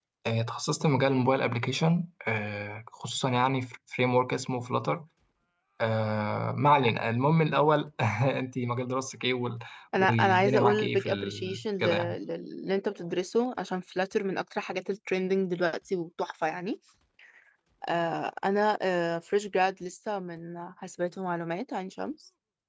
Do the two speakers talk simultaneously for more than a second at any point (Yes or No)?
Yes